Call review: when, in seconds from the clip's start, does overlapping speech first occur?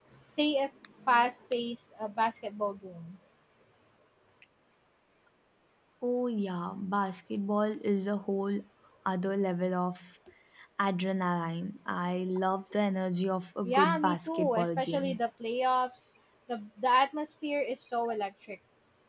13.6 s

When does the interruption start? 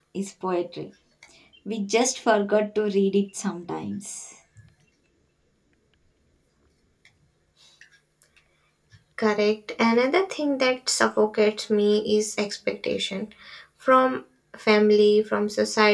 none

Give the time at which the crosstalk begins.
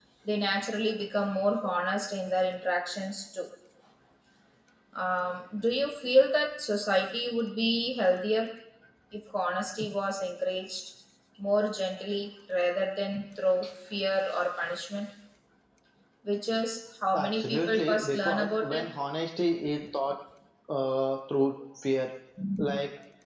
17.1 s

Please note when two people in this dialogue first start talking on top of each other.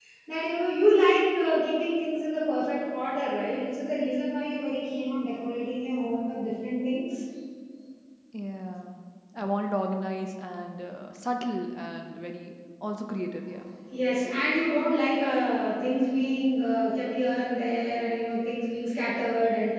none

